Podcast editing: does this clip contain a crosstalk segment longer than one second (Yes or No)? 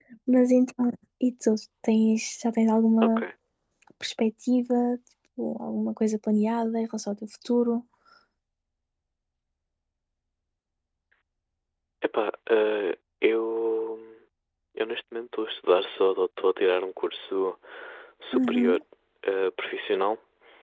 No